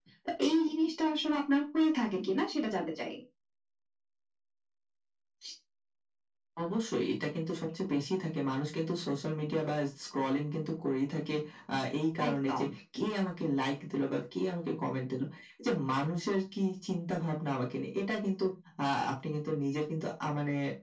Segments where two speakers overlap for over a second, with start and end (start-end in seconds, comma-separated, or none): none